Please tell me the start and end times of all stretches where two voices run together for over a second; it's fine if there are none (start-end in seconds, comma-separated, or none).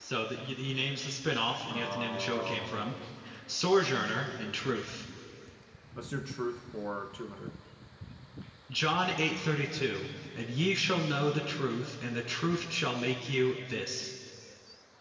1.7-2.9